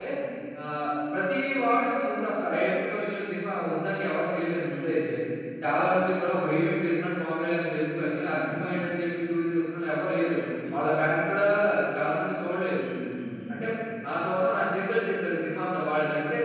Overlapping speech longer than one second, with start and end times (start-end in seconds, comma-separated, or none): none